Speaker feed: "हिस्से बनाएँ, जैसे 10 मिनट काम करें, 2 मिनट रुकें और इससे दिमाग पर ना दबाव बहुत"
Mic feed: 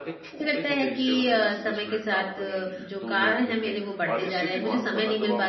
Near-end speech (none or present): present